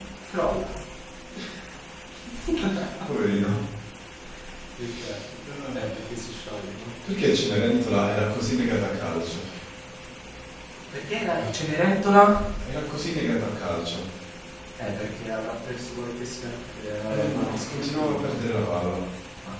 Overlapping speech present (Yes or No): Yes